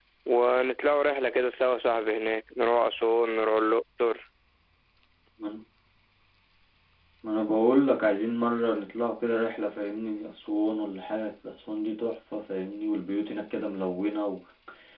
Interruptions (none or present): none